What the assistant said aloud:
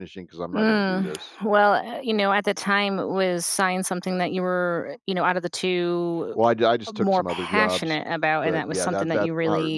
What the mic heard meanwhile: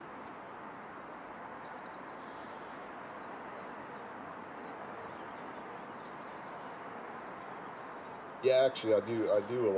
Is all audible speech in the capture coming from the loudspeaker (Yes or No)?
No